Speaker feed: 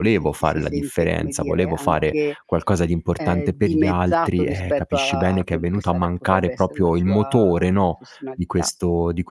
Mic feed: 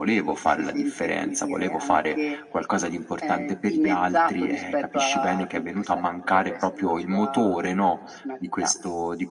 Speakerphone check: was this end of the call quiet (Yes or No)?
Yes